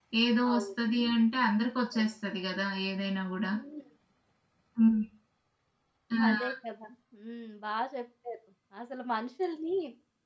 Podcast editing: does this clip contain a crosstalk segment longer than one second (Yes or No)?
No